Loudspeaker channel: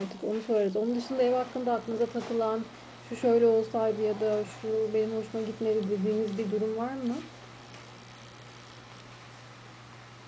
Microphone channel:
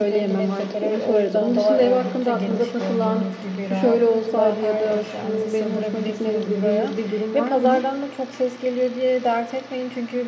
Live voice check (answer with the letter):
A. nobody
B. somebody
B